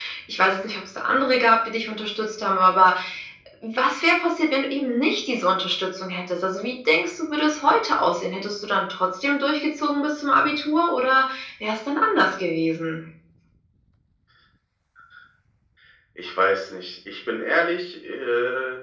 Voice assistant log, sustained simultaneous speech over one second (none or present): none